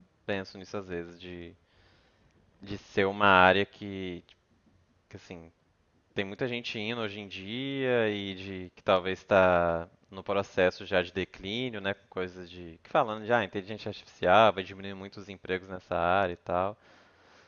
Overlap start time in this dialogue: none

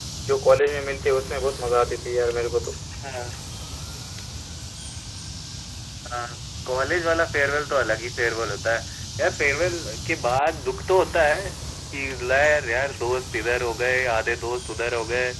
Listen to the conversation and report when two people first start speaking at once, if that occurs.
none

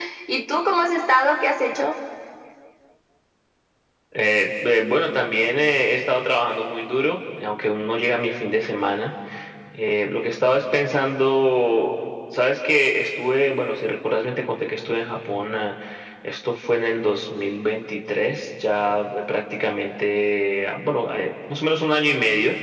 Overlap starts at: none

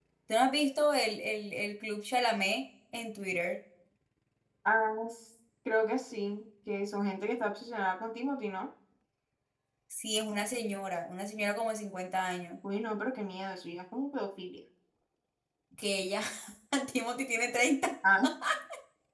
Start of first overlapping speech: none

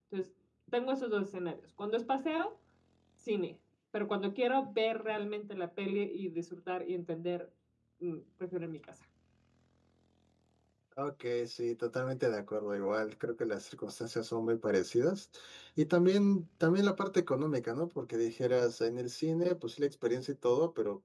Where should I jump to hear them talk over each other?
none

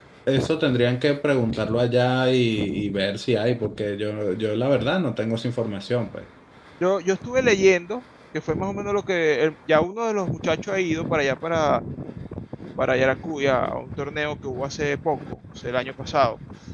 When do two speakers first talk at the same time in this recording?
none

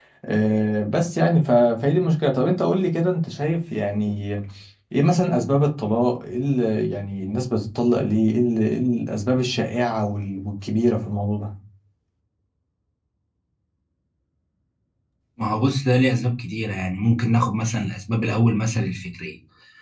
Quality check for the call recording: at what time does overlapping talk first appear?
none

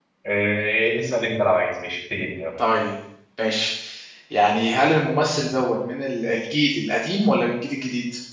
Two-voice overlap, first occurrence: none

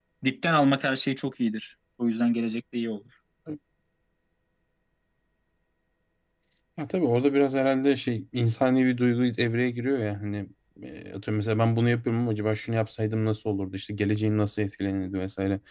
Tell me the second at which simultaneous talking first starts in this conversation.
none

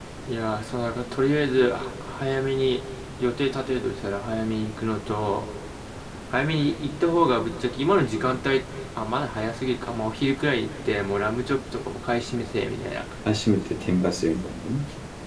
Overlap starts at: none

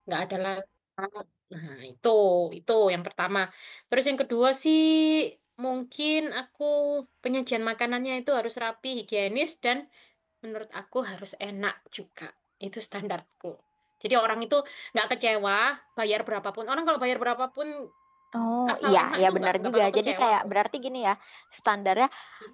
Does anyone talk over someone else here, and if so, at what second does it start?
18.7 s

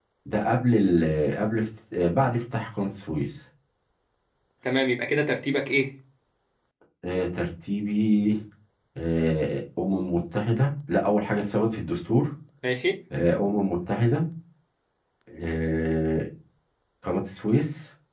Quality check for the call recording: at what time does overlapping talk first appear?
none

